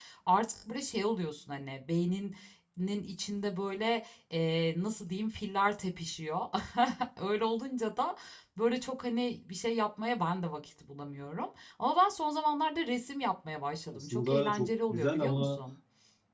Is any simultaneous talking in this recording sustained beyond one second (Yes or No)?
Yes